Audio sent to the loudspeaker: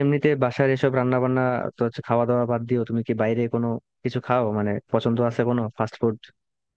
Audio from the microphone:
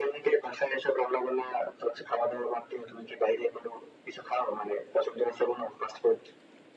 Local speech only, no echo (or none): none